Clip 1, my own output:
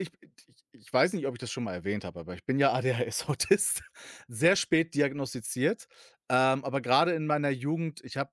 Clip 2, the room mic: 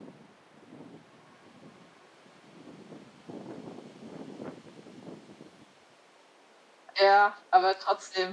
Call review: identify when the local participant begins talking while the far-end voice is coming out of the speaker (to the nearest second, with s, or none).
7 s